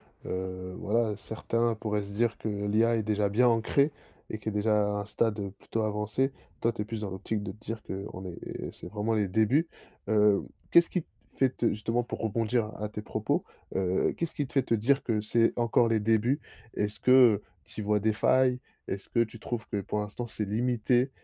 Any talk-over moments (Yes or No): No